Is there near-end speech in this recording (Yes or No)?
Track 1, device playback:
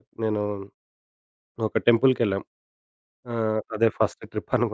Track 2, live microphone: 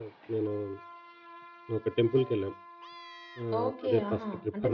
Yes